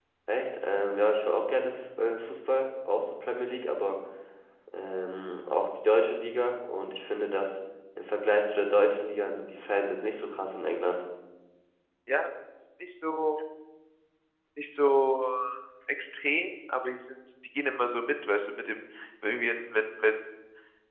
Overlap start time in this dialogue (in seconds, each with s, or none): none